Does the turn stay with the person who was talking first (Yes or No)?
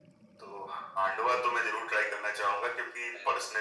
Yes